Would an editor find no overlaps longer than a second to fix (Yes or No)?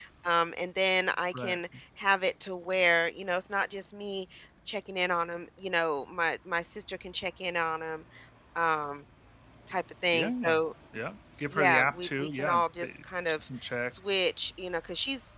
No